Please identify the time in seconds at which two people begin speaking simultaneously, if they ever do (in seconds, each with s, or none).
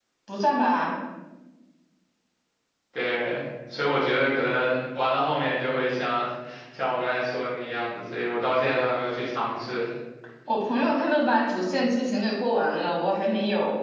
none